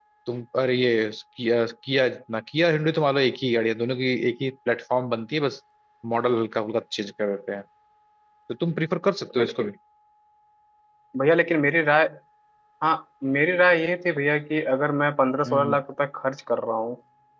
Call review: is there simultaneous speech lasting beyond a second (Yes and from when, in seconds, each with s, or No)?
No